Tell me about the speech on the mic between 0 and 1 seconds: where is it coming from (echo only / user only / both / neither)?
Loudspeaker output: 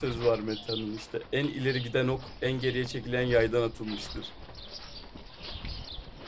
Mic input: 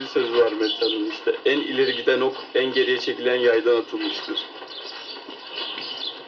echo only